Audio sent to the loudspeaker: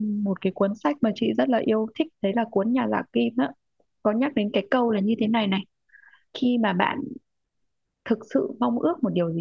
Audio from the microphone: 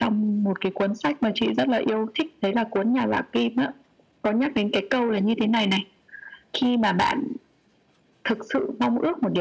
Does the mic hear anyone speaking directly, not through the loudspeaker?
No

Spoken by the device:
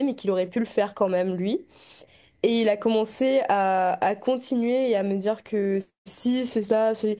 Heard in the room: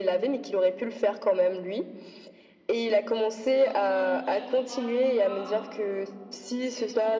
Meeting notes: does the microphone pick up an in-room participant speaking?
Yes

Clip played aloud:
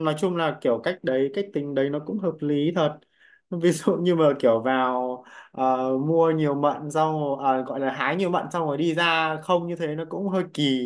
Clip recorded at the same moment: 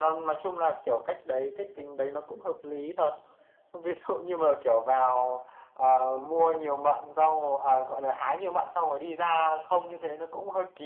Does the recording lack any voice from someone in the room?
Yes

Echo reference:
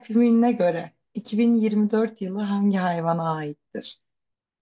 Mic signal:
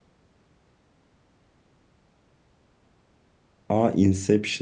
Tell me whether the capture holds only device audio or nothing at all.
No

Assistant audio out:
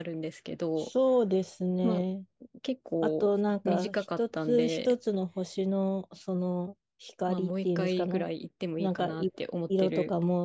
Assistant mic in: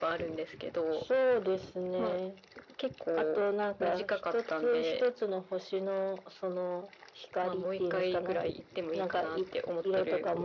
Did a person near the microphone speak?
No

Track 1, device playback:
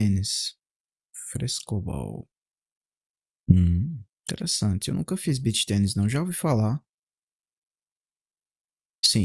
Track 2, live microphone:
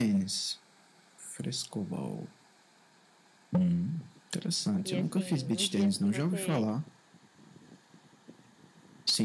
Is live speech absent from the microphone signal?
No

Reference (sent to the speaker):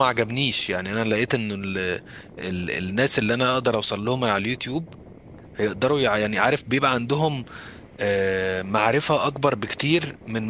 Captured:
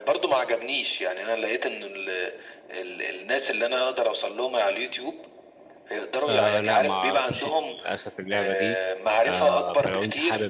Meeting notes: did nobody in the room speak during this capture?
No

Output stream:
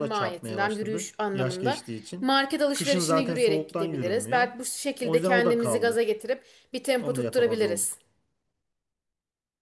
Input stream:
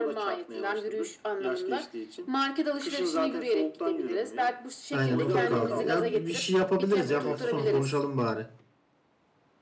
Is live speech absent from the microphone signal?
No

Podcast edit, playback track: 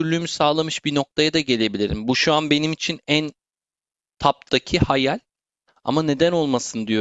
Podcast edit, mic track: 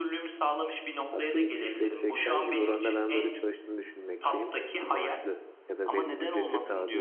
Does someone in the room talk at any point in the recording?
Yes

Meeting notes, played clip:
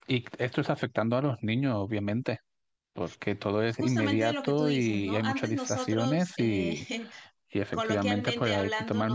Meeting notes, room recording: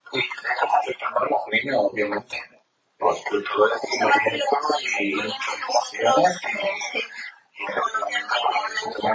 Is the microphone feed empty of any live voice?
Yes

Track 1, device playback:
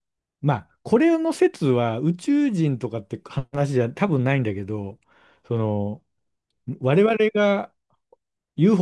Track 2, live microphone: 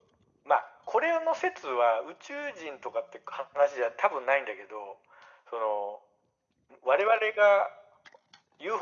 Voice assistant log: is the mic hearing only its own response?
Yes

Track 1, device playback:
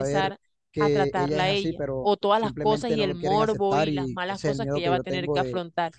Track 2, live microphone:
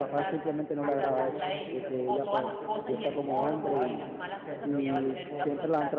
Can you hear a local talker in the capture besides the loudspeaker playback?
Yes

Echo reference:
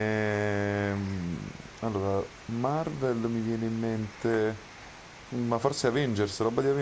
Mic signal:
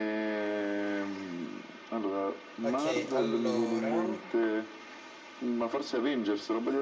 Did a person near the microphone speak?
Yes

